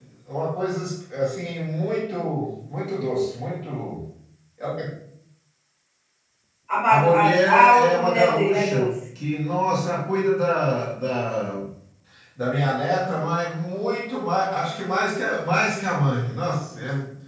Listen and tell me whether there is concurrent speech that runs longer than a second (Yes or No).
Yes